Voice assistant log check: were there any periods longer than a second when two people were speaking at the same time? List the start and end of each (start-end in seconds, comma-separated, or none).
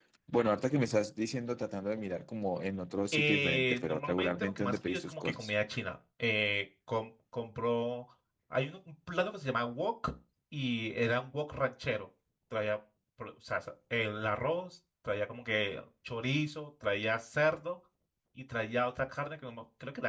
3.1-5.5